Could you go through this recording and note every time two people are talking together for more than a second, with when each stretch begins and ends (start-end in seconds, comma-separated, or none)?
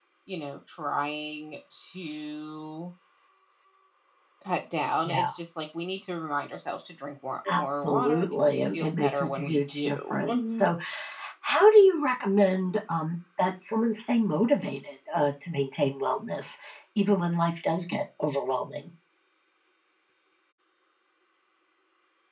7.5-10.7